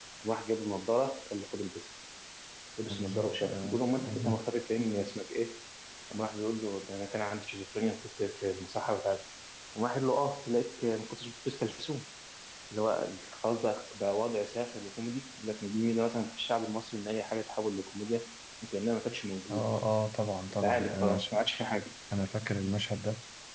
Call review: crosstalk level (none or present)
present